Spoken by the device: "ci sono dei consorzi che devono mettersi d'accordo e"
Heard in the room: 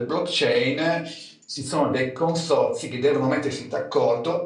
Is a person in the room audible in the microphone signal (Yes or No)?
No